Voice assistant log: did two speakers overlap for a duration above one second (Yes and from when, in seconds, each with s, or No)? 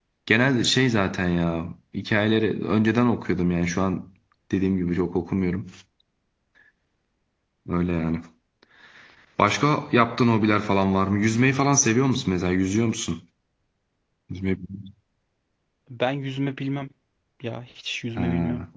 No